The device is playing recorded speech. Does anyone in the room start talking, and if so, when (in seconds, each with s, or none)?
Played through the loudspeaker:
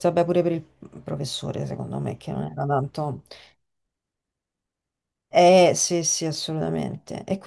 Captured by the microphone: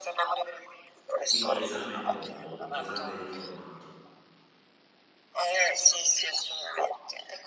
1.2 s